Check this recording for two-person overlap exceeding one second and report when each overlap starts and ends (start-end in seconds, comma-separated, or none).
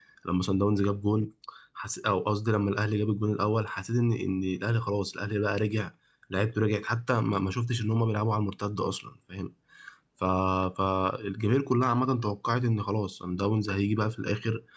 none